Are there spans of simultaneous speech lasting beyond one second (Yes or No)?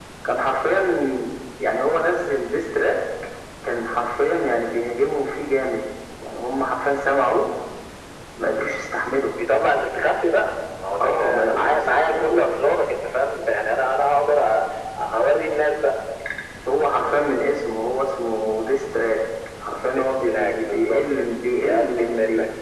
Yes